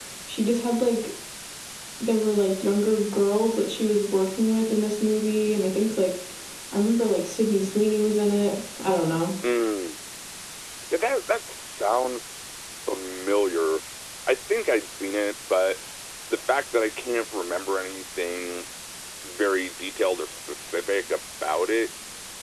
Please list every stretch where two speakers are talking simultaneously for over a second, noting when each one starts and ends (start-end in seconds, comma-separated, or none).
none